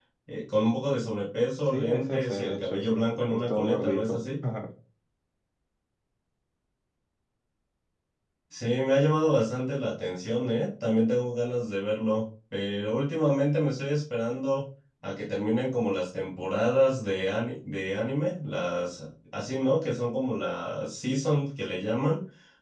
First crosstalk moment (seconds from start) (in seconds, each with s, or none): 1.6 s